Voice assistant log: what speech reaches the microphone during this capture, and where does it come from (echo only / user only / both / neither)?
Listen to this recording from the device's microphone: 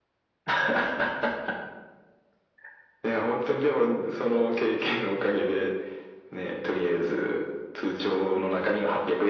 echo only